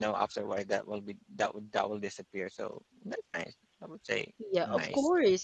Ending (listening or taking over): taking over